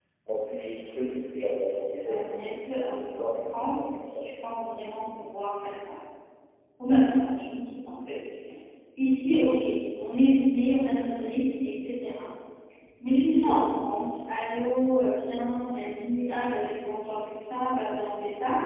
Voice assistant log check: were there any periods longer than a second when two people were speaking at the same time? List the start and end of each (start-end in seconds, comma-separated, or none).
2.1-4.0